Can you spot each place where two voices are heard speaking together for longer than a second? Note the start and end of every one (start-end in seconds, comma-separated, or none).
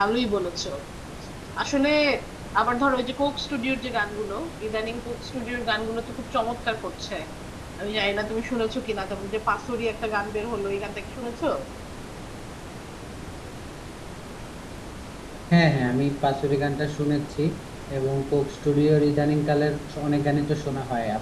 none